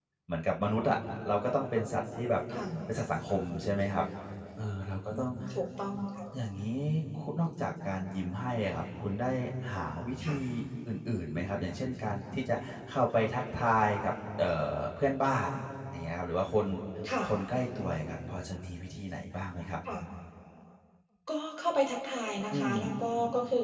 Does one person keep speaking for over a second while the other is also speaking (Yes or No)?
No